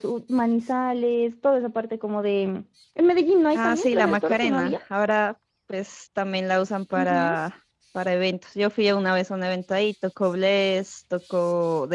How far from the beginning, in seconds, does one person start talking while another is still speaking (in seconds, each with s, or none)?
3.5 s